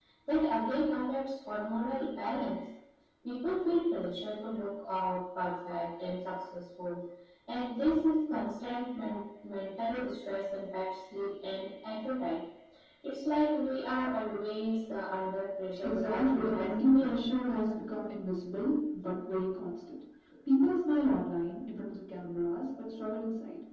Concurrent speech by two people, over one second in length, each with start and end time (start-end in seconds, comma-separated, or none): 15.8-17.1